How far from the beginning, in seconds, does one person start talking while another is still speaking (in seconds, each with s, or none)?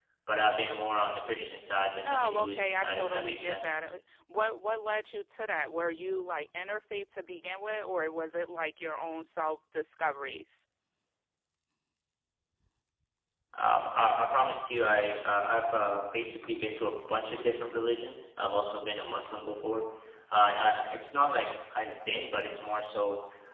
2.0 s